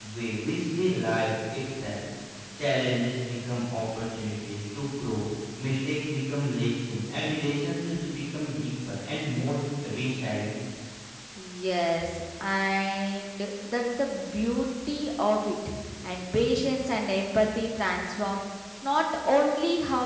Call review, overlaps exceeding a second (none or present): none